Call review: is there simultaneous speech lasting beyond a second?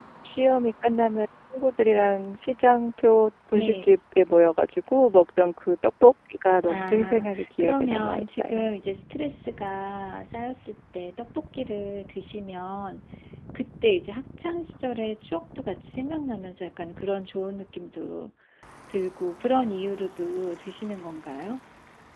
Yes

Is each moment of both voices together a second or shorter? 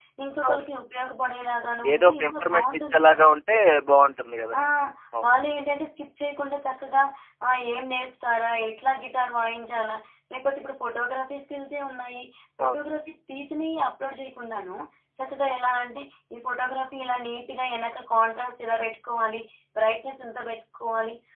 No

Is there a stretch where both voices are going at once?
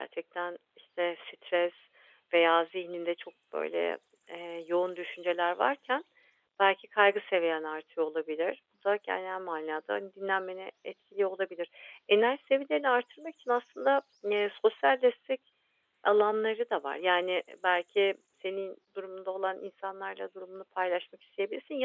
No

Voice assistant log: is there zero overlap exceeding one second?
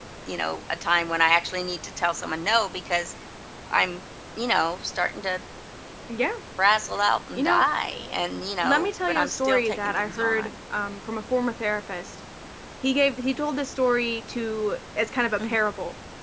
No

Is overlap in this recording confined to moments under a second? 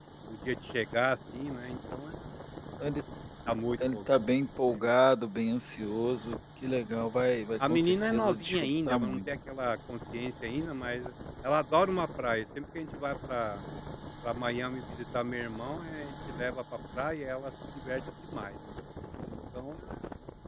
No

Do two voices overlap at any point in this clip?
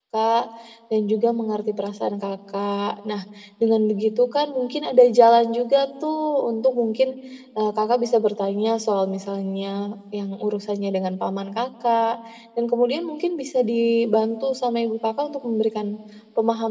No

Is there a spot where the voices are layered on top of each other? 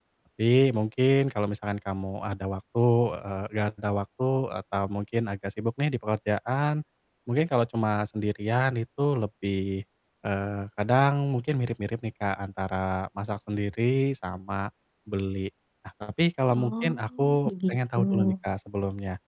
Yes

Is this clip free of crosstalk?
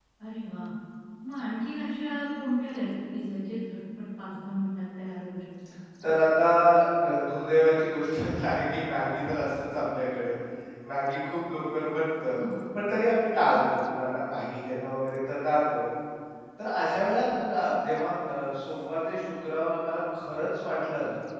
Yes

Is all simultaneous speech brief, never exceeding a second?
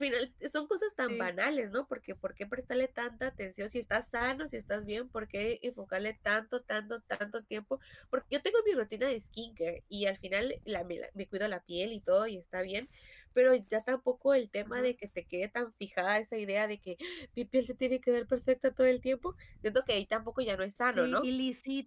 Yes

